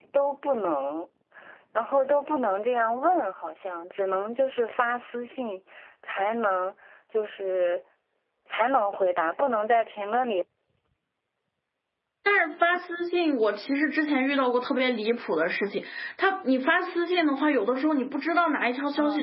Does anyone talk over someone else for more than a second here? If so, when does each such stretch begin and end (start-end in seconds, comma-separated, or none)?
none